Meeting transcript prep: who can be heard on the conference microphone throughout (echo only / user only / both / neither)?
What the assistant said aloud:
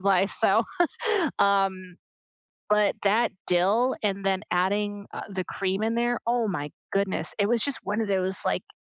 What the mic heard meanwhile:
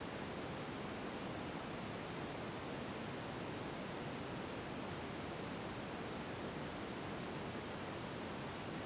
neither